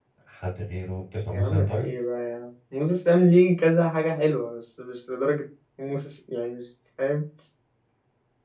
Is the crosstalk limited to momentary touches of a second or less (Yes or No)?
Yes